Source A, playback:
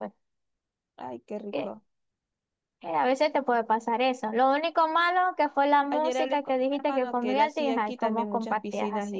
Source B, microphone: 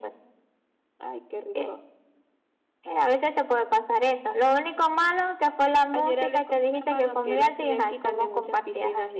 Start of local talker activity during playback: none

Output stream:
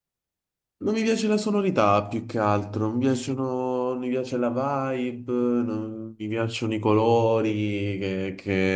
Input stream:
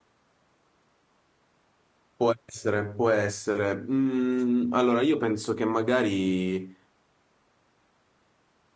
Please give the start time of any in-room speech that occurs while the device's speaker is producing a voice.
2.2 s

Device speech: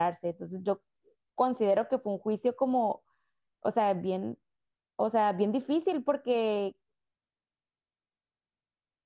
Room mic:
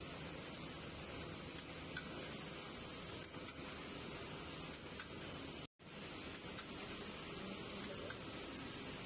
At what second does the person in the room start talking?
none

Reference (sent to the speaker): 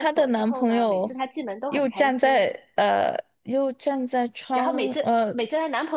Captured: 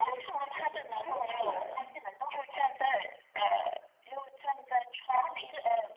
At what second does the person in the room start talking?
0.4 s

